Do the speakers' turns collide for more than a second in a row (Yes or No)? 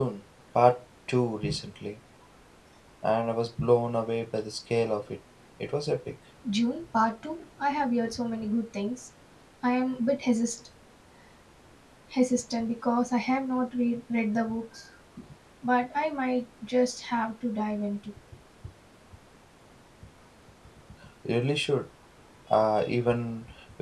No